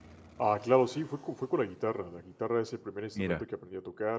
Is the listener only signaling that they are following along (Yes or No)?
Yes